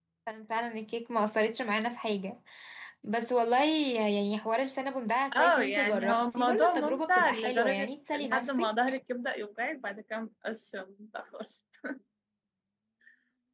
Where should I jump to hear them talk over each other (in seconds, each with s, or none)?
5.3 s